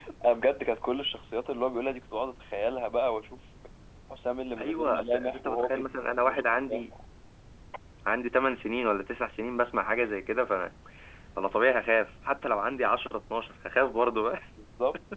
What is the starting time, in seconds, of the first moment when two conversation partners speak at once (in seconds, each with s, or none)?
4.6 s